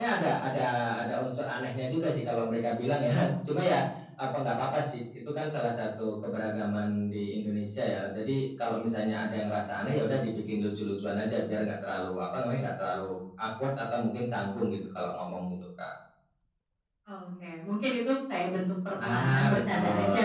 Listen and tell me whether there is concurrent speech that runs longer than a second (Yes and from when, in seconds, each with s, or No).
Yes, from 19.0 s